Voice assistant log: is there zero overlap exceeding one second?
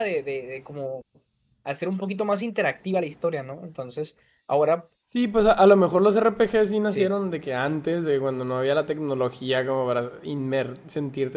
Yes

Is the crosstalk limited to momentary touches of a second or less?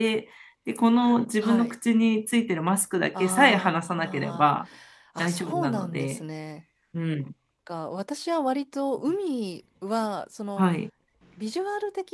No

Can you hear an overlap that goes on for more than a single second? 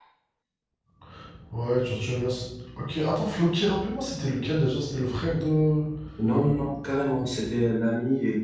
No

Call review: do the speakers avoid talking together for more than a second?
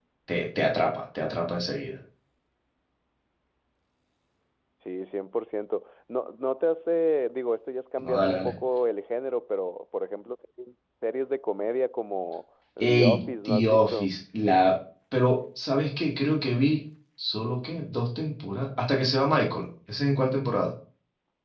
No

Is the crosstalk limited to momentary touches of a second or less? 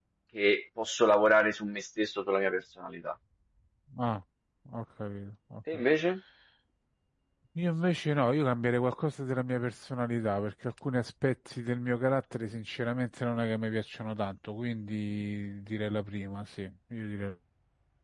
Yes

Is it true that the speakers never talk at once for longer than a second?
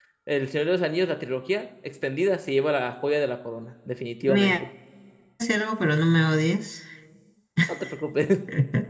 Yes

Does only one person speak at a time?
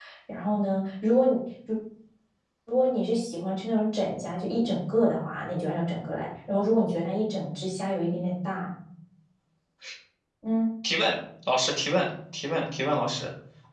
Yes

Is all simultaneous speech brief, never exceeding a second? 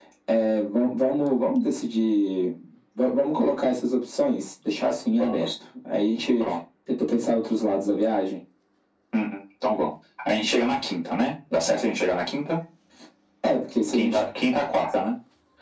Yes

